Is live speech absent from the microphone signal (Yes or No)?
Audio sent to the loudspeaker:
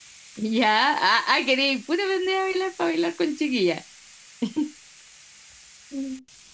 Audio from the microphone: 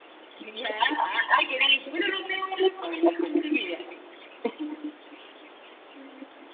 Yes